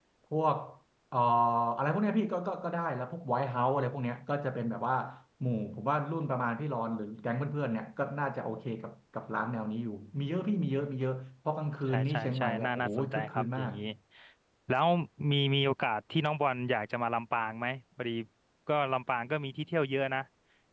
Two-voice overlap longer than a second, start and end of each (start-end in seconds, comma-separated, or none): 11.9-13.7